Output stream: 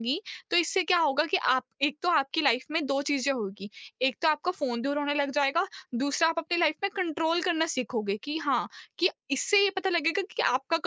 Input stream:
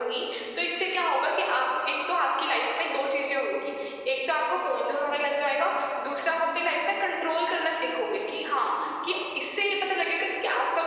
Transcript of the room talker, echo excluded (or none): none